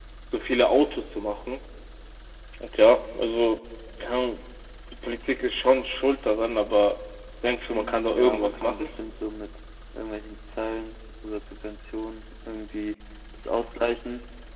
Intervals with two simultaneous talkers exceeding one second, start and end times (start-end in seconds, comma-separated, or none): 7.7-8.9